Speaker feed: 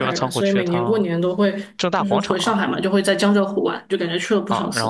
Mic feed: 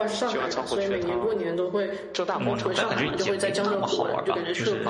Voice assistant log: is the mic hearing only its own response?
No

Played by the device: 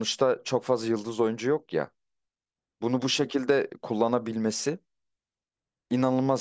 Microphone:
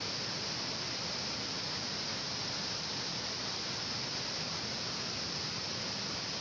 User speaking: No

